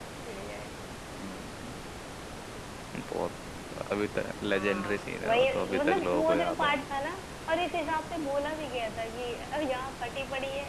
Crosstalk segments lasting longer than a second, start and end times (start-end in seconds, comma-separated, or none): 4.5-6.8